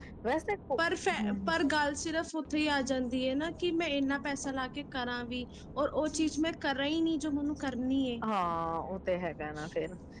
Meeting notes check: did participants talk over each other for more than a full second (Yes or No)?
No